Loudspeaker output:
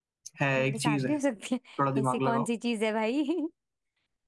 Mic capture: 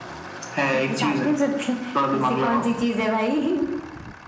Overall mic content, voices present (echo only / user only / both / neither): echo only